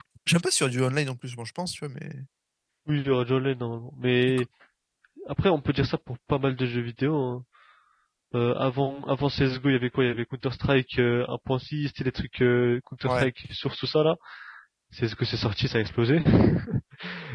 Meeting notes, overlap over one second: none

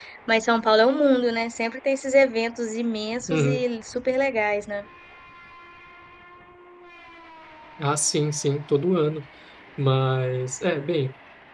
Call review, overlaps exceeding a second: none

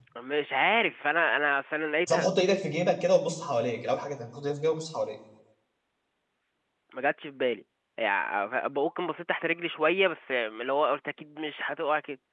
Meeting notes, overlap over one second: none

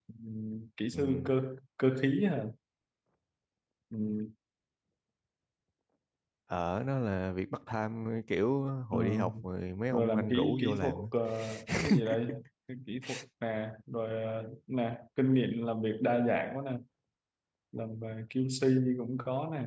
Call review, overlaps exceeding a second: present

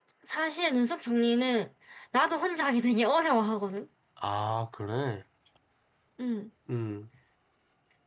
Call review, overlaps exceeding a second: none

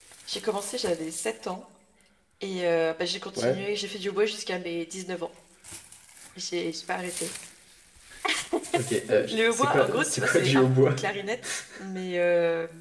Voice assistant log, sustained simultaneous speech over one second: present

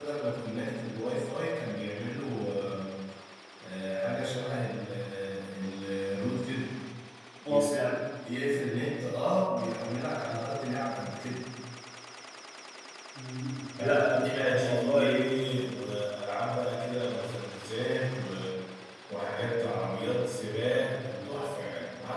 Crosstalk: present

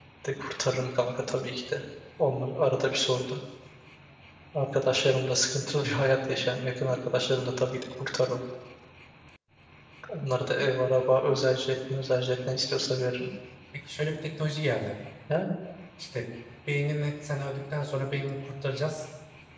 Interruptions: none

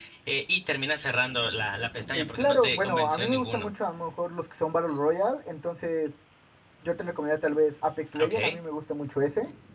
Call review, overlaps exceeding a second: present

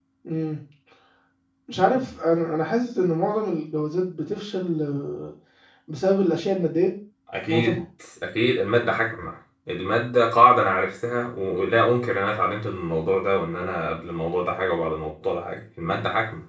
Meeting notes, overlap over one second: none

